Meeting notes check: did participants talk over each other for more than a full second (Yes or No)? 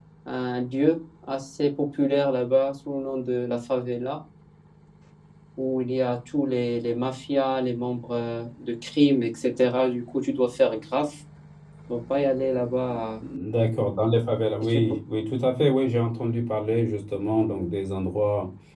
No